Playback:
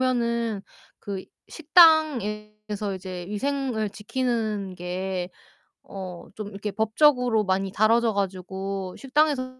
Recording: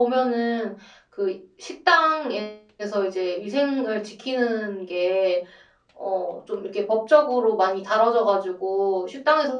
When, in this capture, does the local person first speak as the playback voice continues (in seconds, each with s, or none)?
none